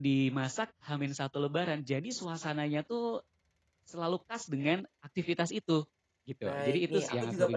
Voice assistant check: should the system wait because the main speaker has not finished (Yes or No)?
No